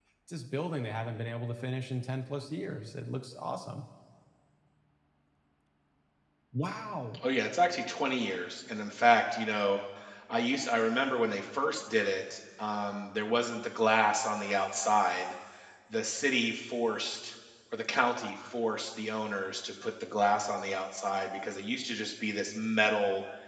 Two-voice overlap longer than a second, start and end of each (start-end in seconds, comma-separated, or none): none